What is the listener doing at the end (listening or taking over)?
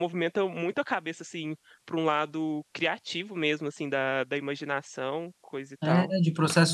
taking over